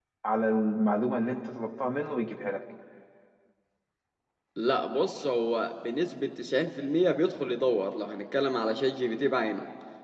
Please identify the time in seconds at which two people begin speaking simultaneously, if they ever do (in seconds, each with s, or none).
none